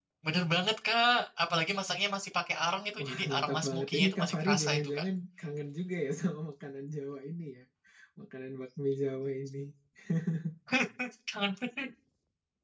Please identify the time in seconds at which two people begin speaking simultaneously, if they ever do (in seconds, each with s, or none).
3.0 s